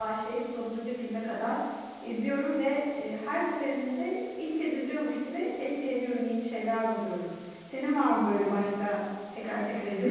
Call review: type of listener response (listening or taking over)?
taking over